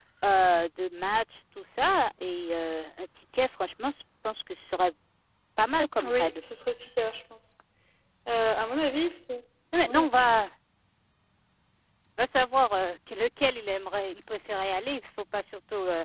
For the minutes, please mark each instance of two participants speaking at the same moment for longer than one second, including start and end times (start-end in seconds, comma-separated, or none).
none